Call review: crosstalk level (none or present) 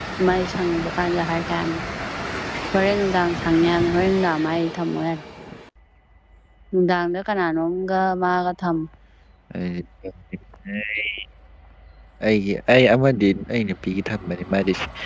none